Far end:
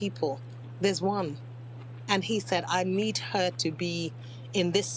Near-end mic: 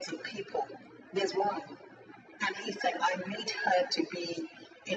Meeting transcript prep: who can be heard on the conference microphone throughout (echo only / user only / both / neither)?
echo only